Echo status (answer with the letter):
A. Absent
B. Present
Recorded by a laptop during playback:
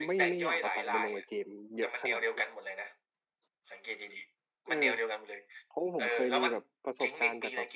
B